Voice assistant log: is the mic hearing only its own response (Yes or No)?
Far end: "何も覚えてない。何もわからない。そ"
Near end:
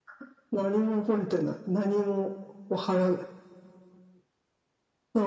Yes